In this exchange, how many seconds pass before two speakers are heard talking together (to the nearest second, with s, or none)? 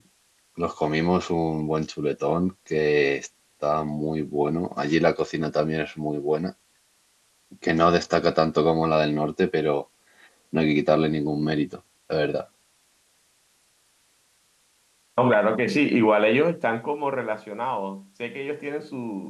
none